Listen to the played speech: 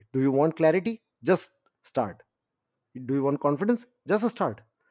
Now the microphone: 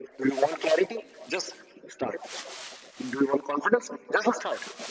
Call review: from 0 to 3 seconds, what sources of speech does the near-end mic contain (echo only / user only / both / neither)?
echo only